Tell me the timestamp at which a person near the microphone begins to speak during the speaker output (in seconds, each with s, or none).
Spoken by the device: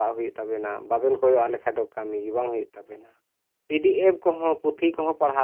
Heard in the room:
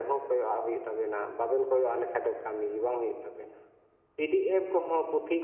none